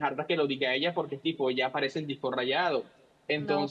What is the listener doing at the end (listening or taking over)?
listening